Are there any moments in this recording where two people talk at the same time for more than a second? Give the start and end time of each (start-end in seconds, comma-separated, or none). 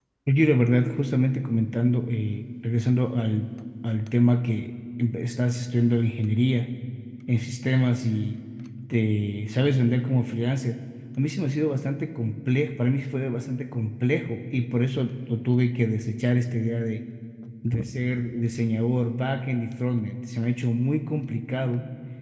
none